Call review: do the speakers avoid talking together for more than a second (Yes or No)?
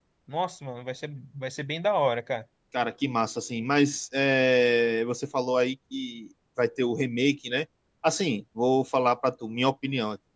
Yes